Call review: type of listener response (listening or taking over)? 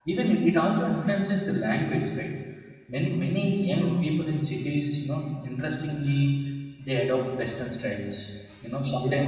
listening